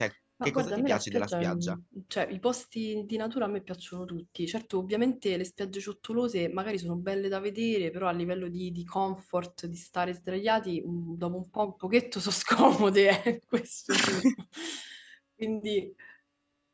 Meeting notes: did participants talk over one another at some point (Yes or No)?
Yes